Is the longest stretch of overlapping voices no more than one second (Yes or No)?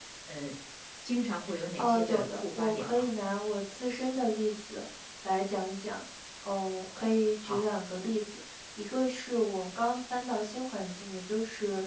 No